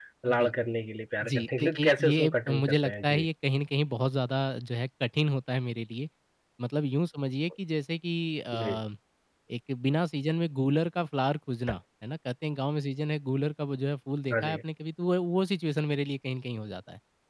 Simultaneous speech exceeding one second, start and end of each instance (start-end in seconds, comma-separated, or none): 1.3-3.2